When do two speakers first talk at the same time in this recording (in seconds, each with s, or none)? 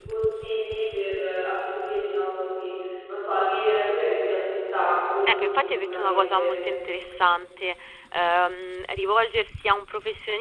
5.2 s